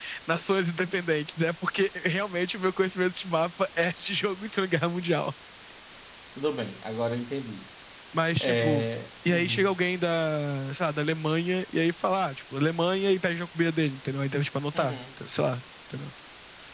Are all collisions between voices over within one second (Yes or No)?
Yes